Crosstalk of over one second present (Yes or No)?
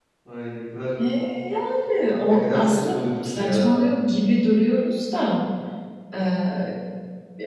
Yes